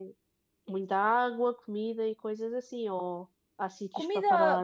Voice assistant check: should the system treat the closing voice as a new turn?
Yes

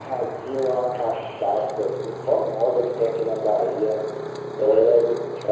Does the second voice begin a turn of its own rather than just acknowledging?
No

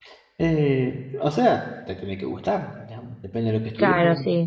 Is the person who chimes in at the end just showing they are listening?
No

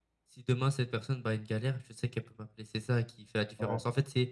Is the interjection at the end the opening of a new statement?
No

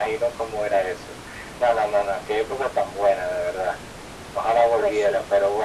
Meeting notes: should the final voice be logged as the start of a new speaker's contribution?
No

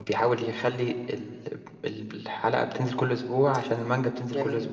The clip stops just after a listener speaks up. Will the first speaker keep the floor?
Yes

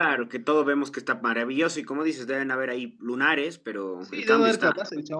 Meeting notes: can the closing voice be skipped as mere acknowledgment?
No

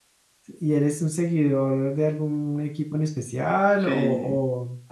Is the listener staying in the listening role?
No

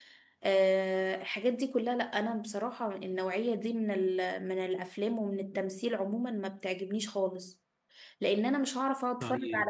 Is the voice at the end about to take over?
No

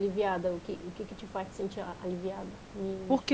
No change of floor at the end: No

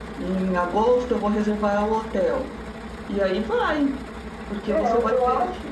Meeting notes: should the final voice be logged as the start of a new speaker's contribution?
Yes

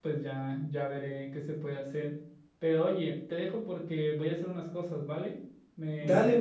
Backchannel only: No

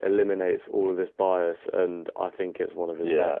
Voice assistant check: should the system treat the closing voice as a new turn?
Yes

